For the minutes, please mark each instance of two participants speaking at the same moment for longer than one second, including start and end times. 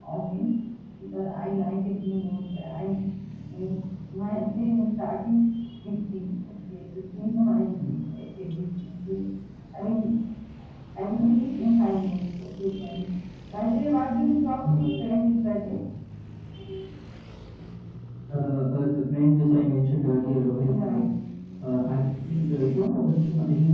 none

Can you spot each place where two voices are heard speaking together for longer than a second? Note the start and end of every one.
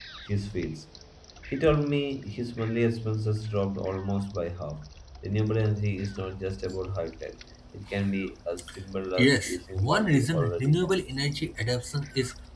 9.2-10.9

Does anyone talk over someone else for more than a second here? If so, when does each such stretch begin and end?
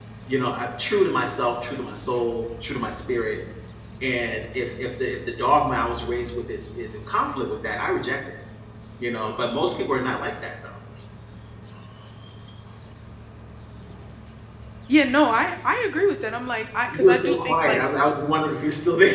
16.9-18.1

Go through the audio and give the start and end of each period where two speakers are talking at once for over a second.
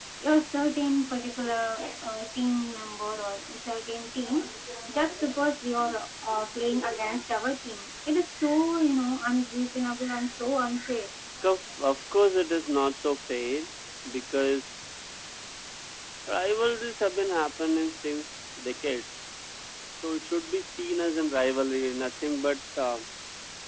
none

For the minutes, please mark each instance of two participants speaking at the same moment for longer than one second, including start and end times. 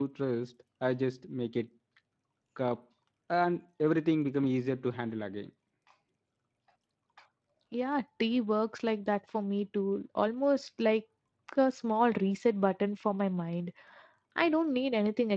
none

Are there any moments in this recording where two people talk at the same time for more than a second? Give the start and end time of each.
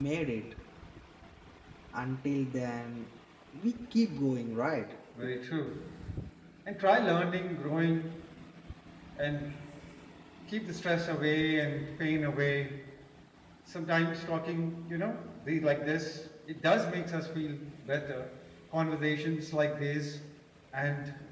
none

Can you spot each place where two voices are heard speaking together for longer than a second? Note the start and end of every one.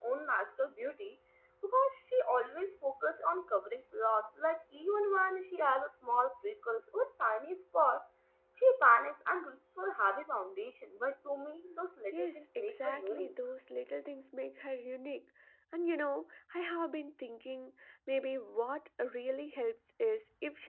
12.1-13.3

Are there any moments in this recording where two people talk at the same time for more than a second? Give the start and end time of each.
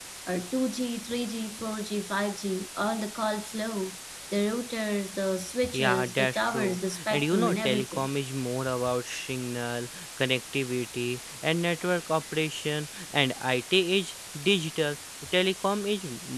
5.7-8.1

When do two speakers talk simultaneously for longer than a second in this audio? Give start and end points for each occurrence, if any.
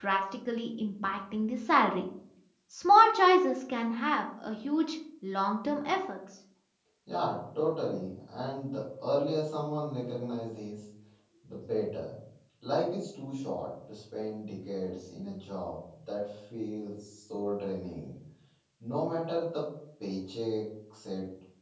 none

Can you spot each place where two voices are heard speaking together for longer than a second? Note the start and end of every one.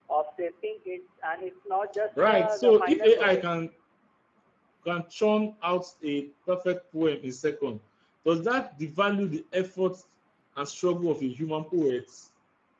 2.2-3.5

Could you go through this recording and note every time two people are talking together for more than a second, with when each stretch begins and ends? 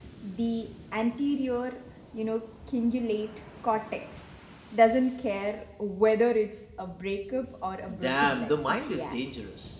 7.9-9.2

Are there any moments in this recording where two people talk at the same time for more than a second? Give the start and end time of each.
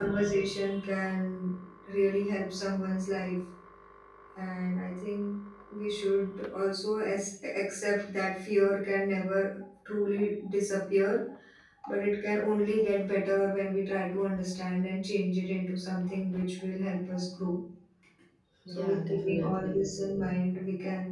18.7-19.9

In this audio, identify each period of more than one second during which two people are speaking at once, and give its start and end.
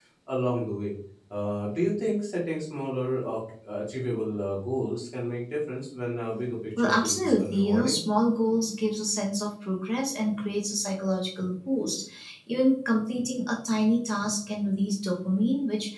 6.8-8.0

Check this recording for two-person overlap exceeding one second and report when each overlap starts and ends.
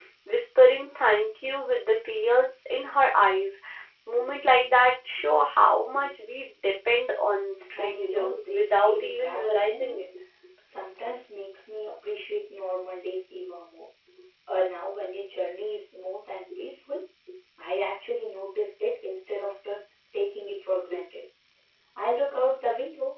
7.8-10.1

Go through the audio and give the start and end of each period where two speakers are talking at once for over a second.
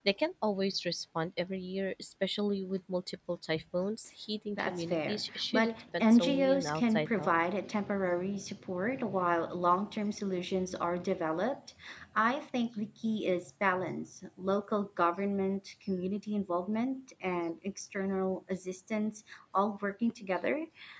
4.6-7.3

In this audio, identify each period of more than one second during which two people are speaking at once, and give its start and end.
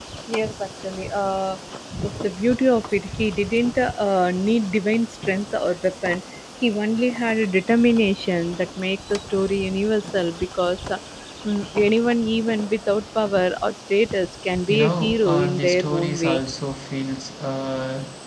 14.7-16.4

